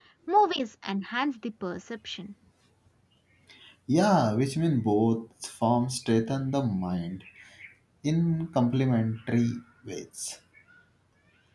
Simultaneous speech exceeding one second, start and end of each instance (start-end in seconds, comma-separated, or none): none